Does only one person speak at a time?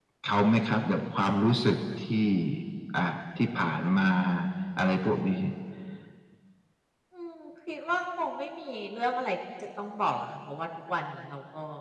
Yes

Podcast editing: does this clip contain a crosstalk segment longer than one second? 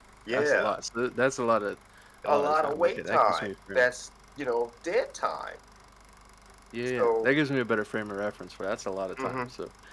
Yes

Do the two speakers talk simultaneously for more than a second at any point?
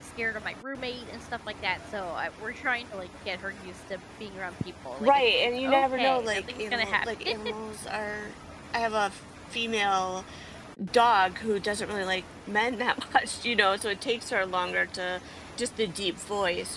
Yes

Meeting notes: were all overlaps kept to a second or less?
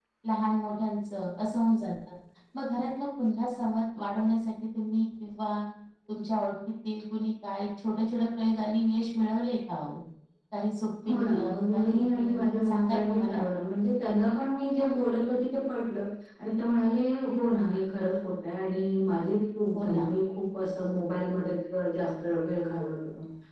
No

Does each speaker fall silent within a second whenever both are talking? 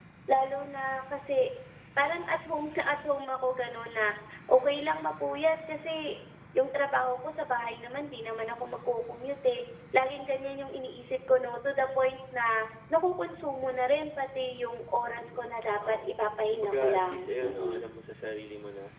No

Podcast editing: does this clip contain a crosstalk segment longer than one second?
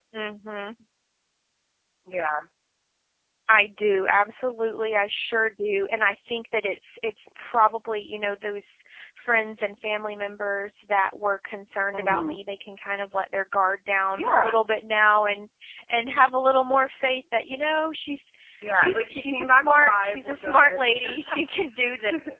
Yes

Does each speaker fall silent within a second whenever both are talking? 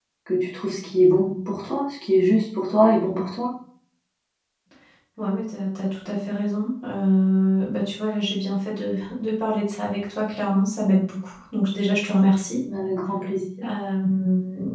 Yes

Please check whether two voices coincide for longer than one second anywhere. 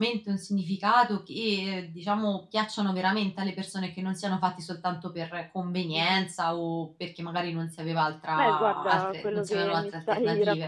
Yes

